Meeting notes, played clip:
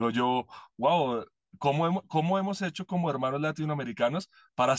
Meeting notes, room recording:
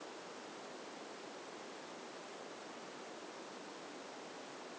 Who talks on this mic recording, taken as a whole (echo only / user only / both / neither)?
neither